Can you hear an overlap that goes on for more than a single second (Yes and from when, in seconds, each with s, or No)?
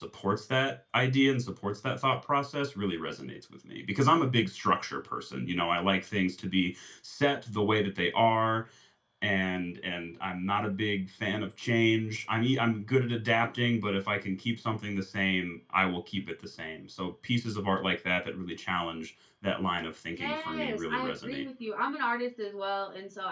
Yes, from 20.2 s